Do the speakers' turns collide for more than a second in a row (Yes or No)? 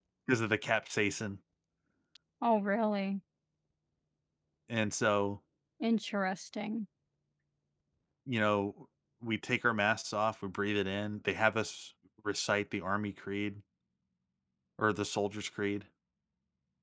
No